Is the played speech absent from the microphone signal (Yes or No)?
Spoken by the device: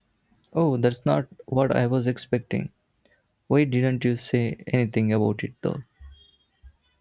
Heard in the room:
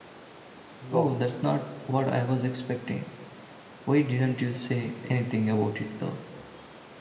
No